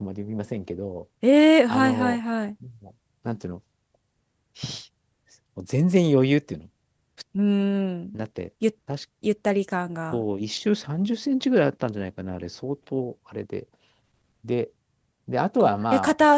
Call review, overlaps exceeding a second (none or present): none